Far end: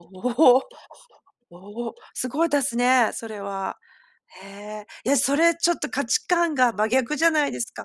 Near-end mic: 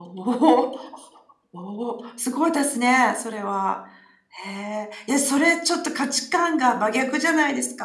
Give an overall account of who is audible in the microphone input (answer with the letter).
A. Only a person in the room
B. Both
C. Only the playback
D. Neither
C